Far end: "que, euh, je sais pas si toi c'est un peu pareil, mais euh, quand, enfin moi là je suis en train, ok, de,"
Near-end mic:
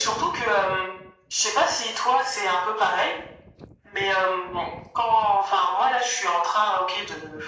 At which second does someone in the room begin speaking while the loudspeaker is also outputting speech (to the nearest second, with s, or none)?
none